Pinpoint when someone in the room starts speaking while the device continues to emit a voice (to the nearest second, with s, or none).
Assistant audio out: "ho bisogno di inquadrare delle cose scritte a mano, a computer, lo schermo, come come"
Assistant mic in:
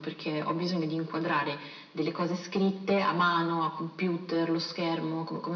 none